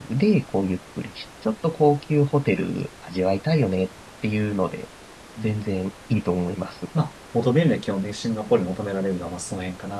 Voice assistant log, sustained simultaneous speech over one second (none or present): none